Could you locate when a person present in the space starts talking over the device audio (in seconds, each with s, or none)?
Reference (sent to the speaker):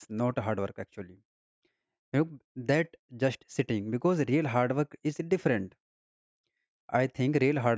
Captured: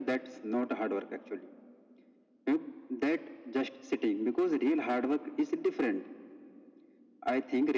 none